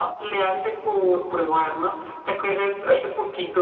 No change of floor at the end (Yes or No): Yes